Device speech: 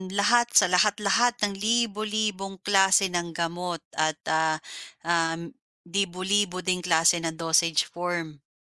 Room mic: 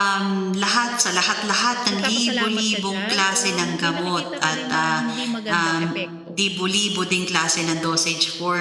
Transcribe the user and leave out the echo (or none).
nagpapasalamat ka diyan or may nakikita ka din na hindi magandang epekto?